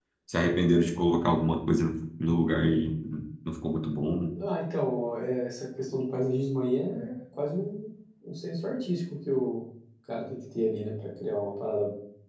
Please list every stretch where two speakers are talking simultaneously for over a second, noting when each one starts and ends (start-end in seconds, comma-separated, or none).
none